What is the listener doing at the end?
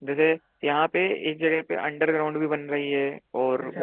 listening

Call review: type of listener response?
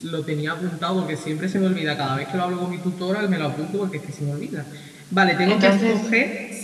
listening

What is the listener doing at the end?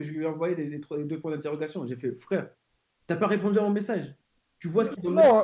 taking over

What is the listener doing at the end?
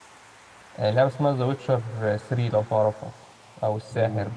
taking over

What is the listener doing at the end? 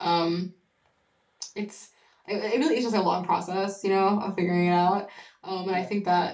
listening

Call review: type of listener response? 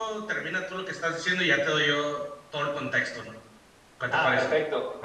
taking over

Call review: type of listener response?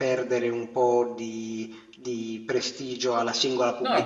taking over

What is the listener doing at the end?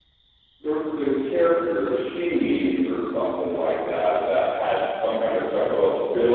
listening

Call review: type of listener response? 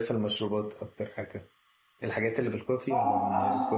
taking over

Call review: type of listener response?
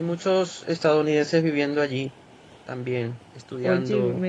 taking over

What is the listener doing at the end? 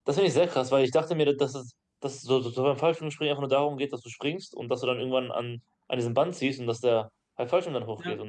taking over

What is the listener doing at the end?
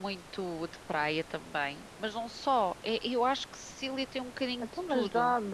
taking over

